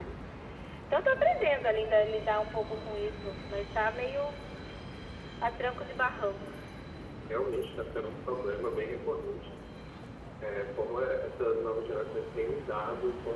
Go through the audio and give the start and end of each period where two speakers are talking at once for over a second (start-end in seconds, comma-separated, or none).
none